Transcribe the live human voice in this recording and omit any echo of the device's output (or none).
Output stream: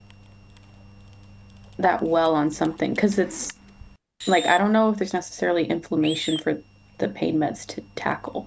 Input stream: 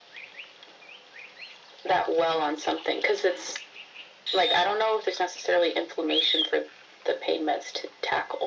none